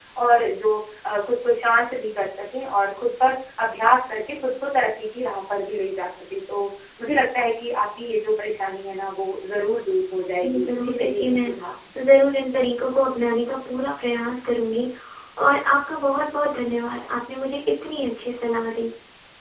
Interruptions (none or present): present